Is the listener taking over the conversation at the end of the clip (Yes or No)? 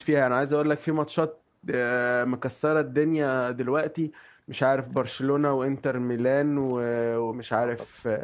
No